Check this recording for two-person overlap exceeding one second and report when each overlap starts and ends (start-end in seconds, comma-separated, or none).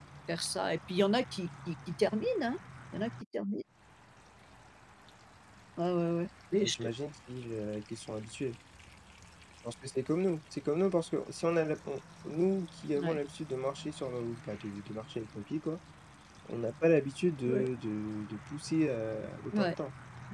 none